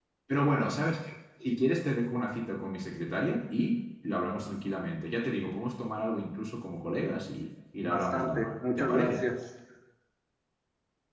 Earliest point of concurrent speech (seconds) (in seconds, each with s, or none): 7.9 s